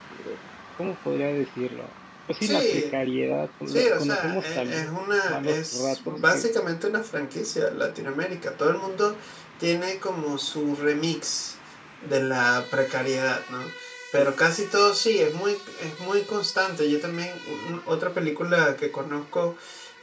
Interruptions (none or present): present